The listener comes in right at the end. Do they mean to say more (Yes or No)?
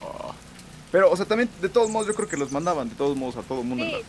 Yes